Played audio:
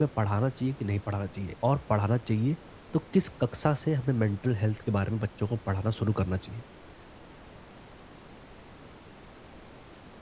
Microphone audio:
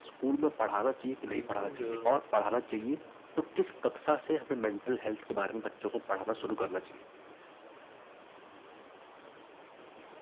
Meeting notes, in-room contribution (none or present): present